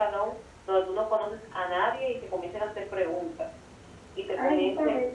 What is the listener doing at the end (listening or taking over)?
taking over